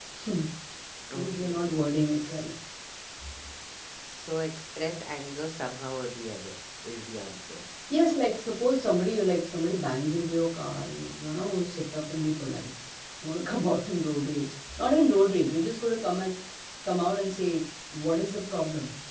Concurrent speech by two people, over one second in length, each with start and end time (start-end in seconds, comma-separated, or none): none